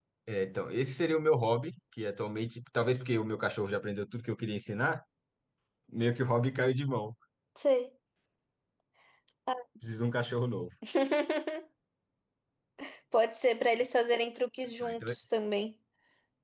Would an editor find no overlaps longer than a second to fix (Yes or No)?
Yes